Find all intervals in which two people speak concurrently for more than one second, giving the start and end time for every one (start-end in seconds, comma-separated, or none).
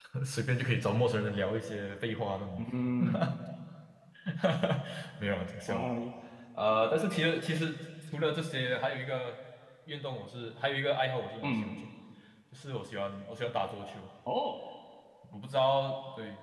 none